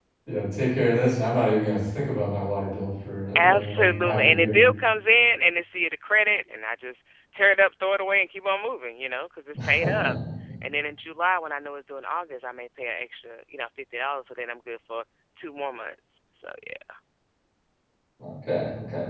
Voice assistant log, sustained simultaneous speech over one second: present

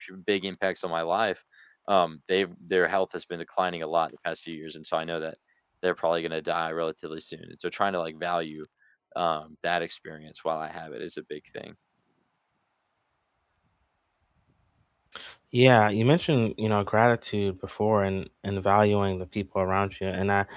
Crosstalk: none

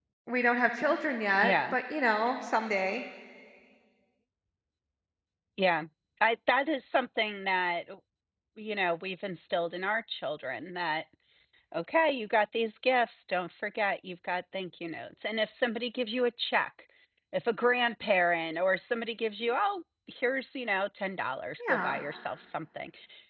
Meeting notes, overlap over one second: none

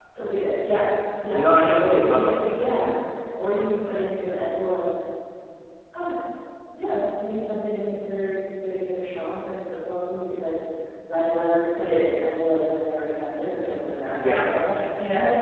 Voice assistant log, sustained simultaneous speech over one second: present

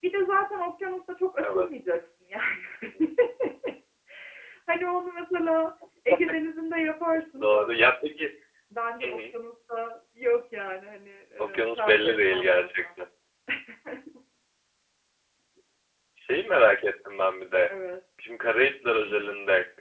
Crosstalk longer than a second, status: present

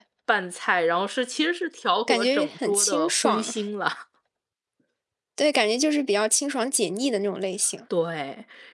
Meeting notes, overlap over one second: present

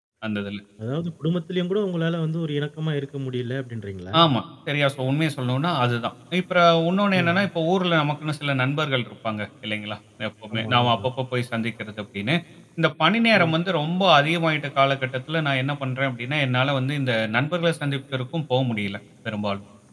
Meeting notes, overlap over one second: none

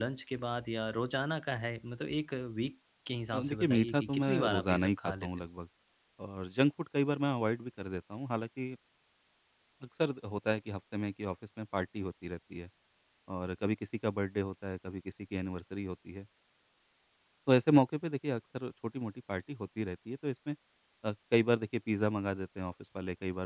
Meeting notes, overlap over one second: present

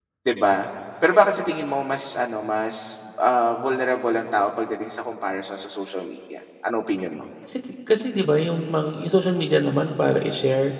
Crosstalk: none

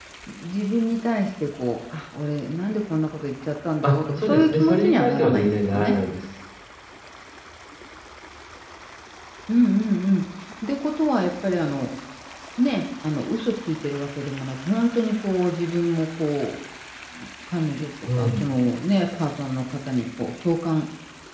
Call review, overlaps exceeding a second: present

